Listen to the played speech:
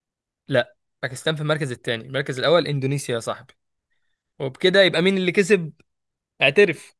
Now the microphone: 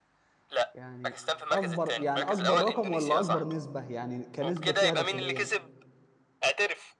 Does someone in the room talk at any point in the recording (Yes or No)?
Yes